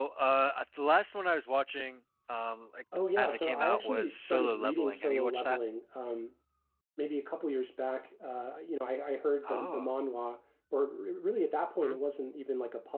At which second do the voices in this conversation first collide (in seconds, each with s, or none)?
3.2 s